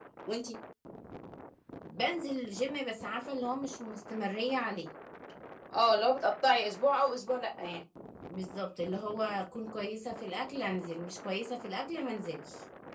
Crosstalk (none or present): none